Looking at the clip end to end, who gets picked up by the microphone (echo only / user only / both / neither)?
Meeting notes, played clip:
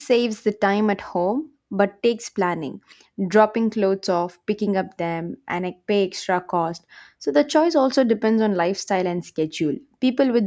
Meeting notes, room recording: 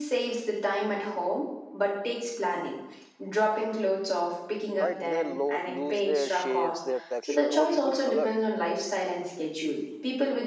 both